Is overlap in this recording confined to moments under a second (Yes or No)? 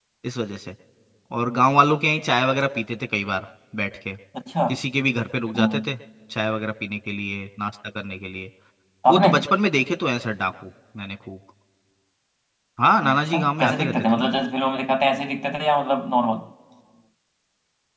No